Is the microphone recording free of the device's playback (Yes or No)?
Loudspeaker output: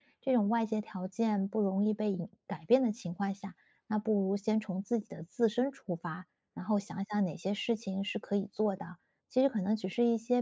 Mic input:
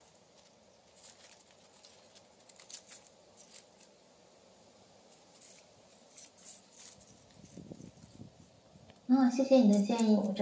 Yes